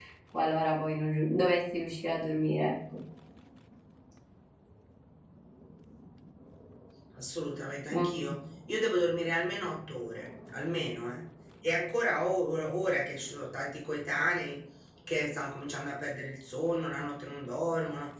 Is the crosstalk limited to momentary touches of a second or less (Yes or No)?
Yes